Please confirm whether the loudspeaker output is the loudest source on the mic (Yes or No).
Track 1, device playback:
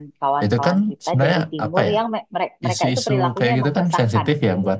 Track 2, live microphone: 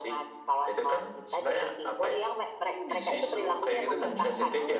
Yes